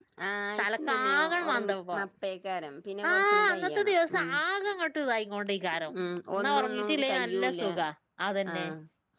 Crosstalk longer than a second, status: present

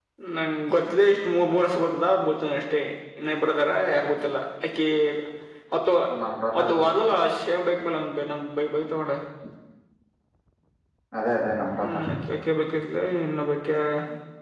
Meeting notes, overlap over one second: none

